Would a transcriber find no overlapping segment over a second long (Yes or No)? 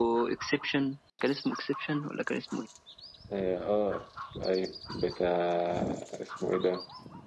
Yes